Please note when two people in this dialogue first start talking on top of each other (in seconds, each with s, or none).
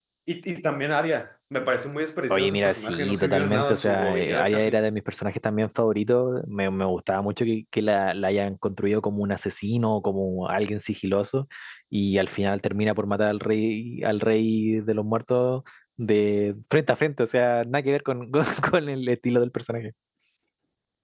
2.3 s